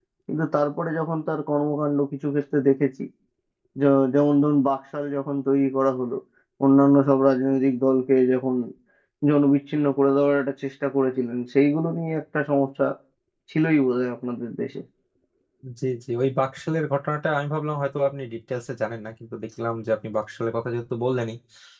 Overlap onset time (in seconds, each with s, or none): none